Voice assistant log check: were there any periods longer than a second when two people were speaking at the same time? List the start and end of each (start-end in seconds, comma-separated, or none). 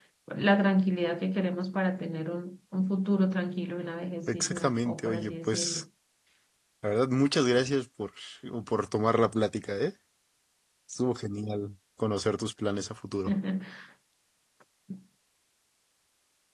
4.3-5.8